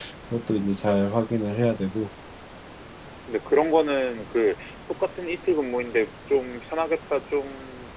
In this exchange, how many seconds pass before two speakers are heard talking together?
none

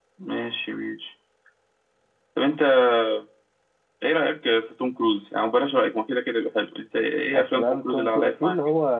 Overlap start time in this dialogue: 7.3 s

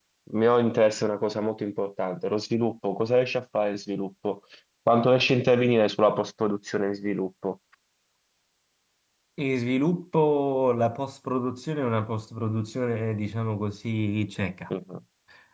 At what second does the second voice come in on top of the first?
none

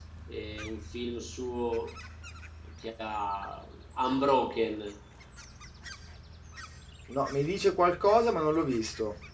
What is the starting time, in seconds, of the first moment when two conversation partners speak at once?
none

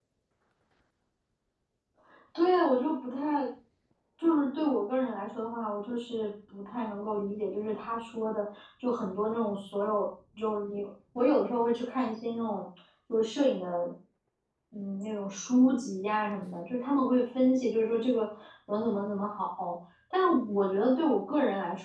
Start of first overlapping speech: none

